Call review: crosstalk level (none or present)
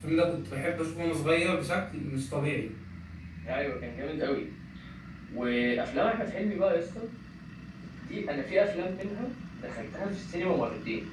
none